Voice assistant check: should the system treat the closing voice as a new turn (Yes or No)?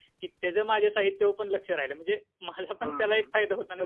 Yes